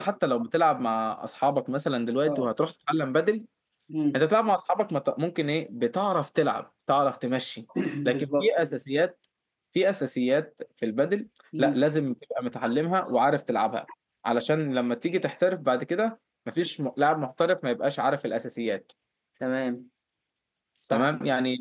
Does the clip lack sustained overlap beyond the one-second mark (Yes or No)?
Yes